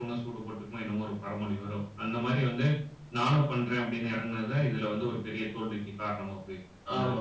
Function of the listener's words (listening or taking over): taking over